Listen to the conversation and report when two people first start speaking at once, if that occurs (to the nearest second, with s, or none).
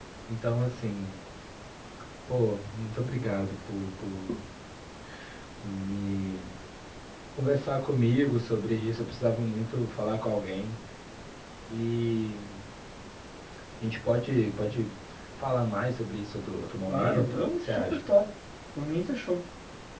17 s